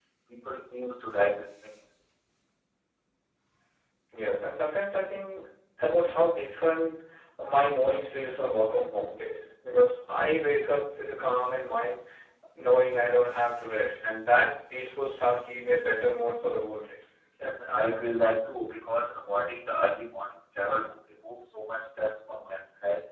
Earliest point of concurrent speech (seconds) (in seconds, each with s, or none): none